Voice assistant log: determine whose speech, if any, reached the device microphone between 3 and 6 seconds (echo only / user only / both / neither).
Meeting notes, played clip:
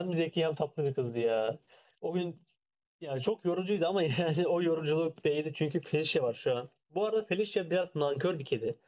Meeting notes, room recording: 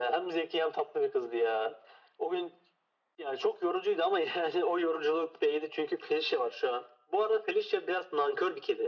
echo only